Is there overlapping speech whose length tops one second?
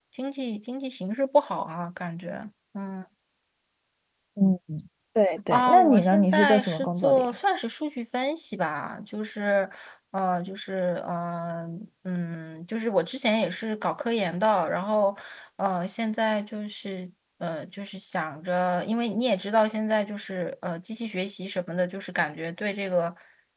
Yes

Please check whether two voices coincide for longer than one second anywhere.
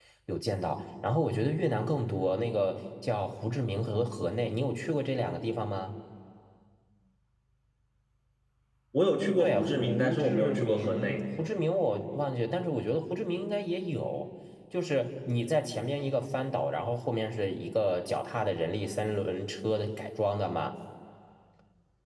Yes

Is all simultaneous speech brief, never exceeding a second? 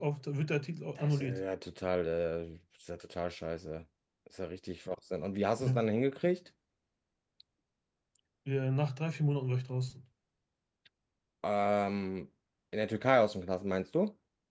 Yes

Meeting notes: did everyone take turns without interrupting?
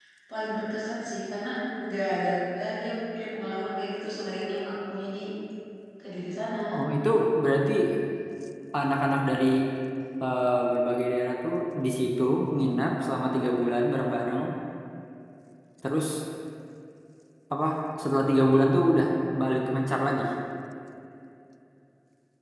Yes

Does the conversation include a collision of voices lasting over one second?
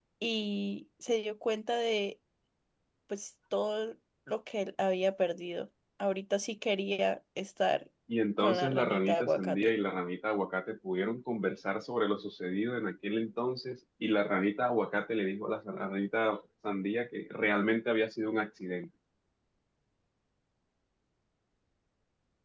Yes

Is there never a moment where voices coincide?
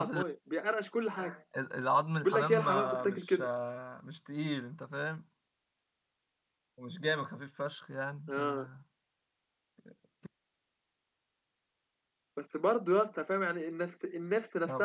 No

